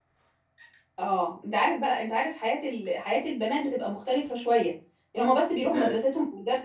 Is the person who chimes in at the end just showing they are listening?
Yes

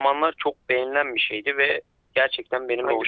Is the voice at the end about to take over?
No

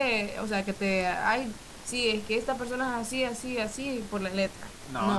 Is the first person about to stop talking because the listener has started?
Yes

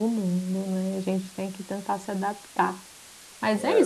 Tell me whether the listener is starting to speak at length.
No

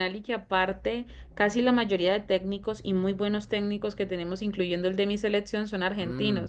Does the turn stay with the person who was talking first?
No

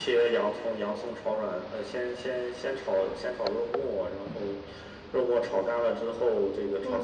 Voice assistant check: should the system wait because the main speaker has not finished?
No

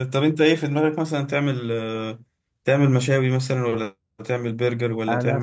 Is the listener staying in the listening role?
No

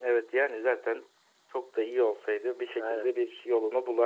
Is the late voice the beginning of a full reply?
No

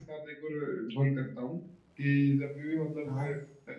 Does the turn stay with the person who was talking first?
Yes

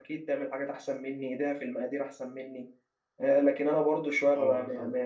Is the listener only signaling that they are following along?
Yes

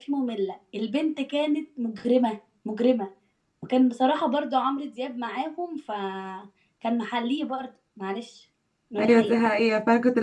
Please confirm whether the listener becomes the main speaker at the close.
Yes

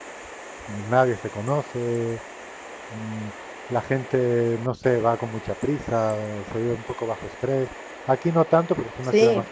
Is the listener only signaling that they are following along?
Yes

